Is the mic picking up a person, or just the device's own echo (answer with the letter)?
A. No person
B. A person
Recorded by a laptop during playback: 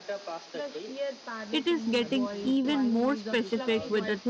B